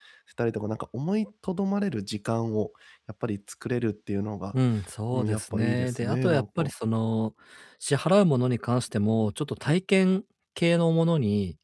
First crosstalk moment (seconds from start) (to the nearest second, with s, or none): 5 s